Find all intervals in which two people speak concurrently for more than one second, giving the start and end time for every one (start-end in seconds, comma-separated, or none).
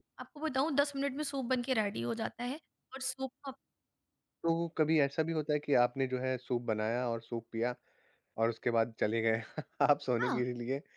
none